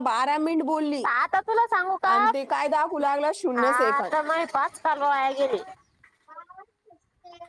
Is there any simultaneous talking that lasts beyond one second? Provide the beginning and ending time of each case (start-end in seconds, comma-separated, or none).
none